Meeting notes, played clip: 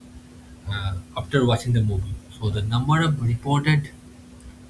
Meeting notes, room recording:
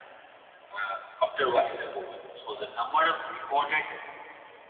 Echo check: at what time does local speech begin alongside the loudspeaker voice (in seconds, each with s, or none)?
none